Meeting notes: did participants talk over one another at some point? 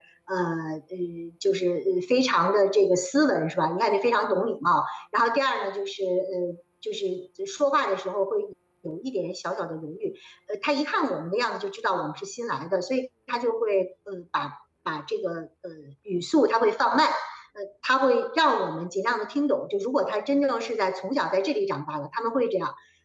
No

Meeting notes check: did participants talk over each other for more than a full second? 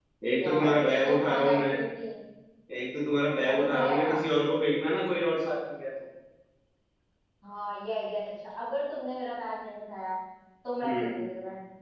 Yes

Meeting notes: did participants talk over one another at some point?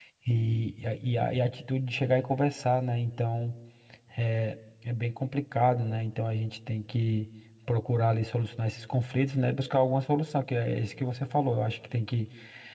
No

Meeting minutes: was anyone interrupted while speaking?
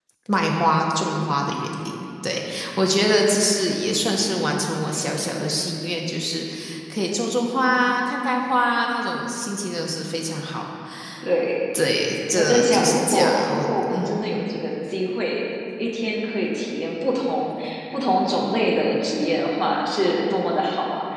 Yes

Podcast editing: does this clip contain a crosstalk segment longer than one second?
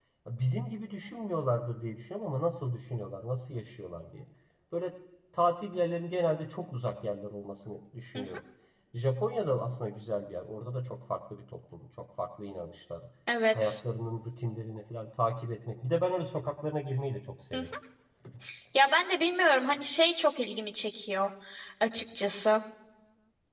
No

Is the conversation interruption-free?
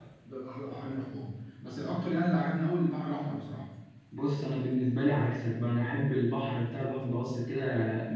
Yes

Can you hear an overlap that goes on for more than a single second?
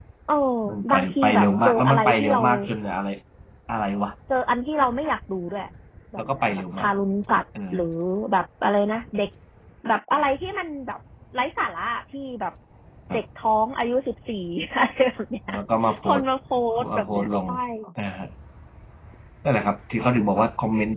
Yes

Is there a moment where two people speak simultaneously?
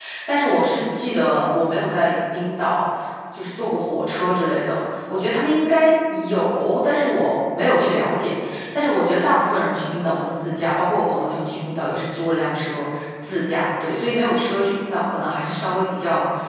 No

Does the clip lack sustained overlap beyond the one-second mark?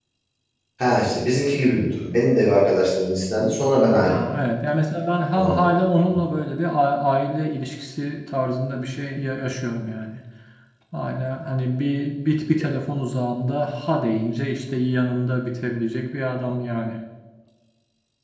Yes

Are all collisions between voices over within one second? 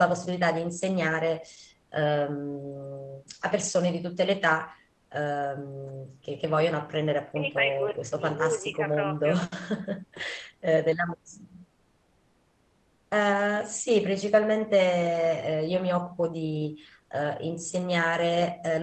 No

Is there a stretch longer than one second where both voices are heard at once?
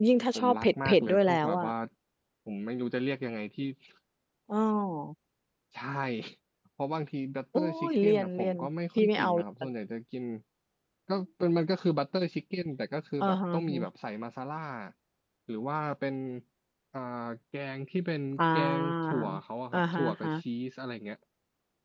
Yes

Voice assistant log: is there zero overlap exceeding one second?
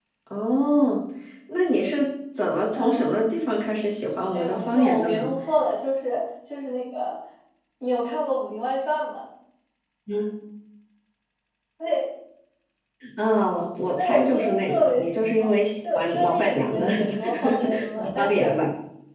No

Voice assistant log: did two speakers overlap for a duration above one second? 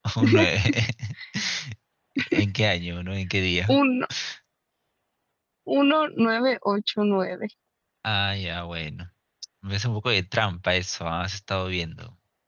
No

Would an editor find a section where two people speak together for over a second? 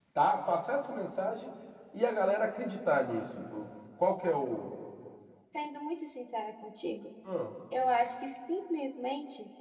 No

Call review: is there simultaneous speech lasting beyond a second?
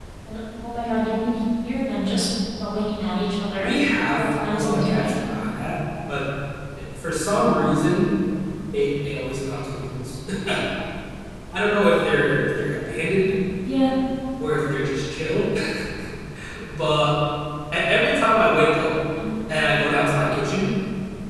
Yes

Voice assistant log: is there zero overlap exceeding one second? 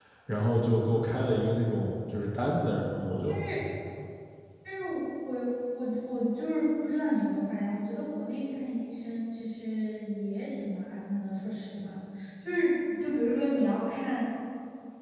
Yes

